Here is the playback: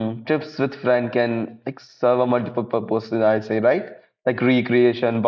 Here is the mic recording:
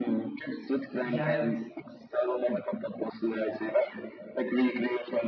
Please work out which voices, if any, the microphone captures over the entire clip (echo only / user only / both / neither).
both